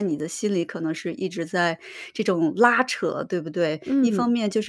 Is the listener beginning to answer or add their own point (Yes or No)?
No